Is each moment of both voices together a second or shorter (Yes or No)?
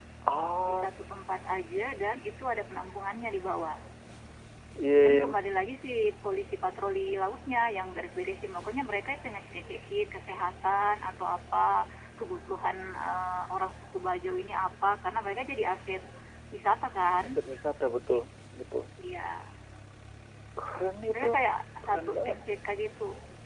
Yes